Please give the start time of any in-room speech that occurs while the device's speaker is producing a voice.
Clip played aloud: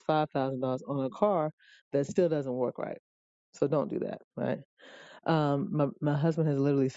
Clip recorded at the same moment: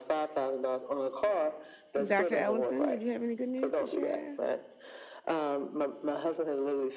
2.0 s

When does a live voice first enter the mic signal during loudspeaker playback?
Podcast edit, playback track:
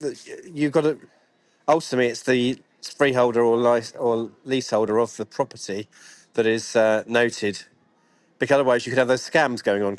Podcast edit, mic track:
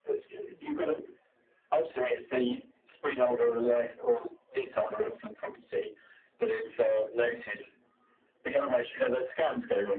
none

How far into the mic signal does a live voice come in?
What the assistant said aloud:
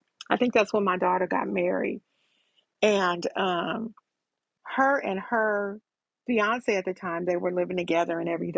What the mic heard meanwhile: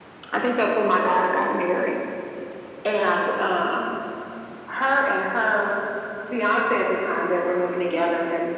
none

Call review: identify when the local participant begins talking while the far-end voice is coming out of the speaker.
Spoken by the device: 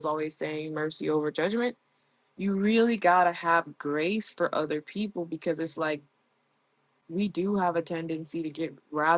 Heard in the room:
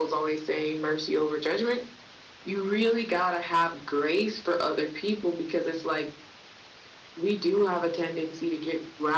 none

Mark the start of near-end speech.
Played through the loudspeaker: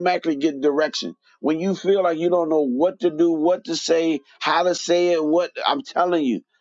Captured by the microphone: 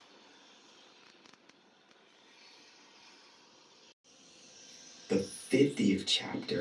5.1 s

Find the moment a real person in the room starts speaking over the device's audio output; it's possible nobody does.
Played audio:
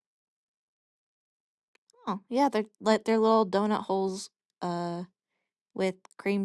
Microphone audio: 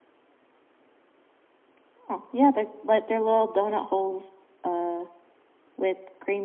none

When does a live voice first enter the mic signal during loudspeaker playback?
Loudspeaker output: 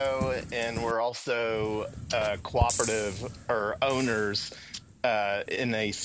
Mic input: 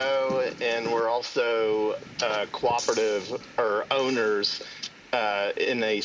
none

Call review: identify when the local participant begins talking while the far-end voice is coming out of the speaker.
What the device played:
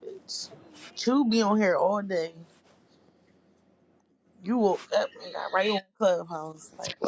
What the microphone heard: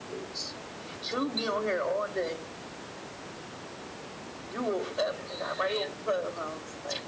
none

